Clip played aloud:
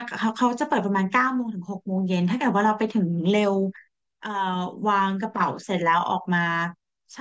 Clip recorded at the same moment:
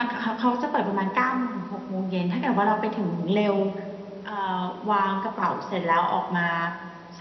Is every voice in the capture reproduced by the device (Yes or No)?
Yes